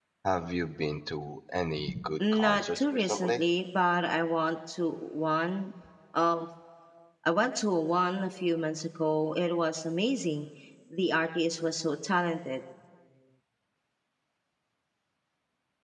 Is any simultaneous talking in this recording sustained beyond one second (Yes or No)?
Yes